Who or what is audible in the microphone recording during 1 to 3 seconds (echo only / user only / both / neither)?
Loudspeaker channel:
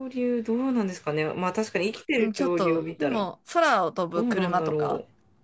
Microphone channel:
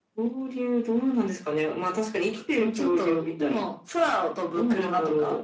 echo only